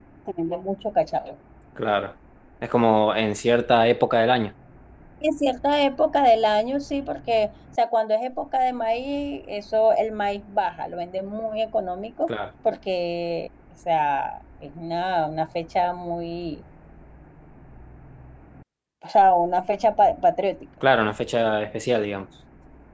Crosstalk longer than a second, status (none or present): none